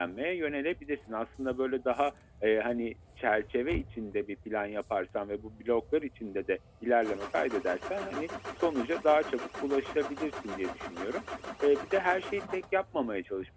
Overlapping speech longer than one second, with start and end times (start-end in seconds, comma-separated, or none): none